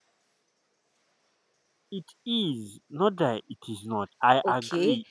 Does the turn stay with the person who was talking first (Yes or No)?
No